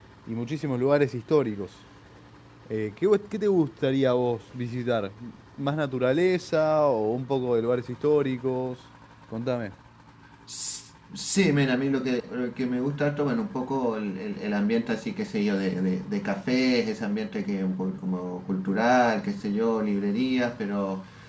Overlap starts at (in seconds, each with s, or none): none